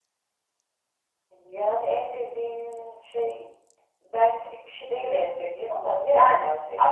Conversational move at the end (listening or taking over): taking over